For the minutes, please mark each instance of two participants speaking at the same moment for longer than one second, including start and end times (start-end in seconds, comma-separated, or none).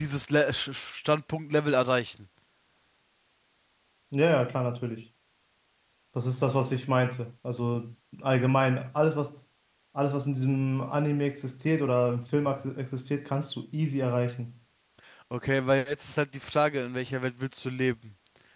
none